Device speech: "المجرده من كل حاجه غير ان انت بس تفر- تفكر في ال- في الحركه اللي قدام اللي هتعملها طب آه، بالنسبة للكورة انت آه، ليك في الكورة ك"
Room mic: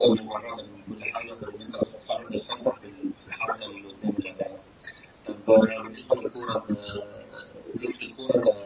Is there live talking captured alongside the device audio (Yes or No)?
No